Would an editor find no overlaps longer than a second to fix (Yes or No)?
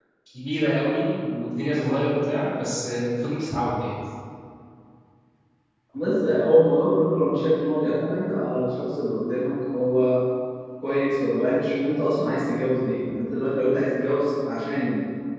Yes